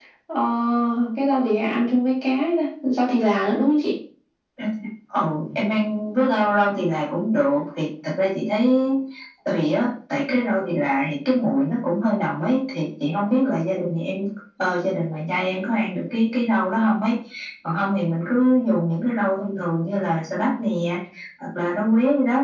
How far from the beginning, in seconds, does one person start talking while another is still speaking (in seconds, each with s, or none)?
none